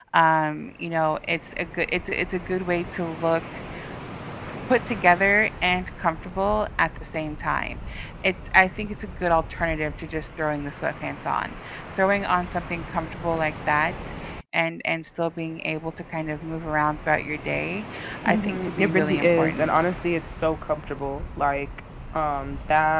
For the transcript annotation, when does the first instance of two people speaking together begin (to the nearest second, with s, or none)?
18 s